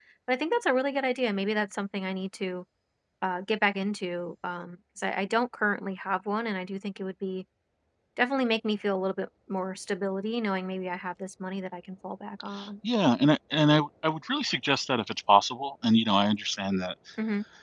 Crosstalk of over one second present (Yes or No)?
No